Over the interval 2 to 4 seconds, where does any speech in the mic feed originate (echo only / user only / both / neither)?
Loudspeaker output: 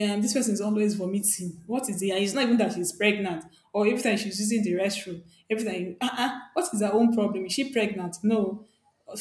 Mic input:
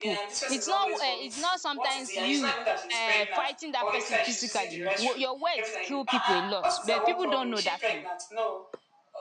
both